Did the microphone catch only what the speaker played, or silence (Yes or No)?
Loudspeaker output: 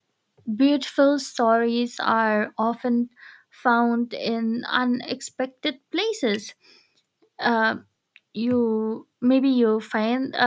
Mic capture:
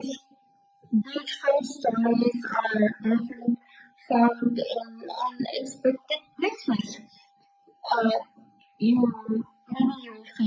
Yes